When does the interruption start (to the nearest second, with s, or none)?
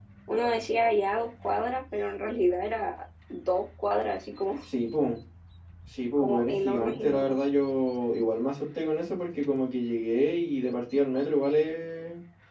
6 s